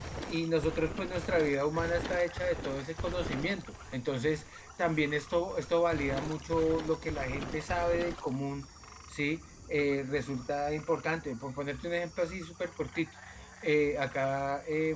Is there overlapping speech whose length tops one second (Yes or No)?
No